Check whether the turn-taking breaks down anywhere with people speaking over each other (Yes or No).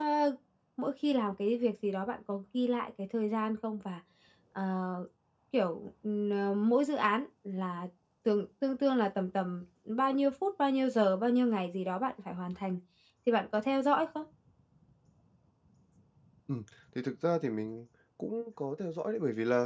No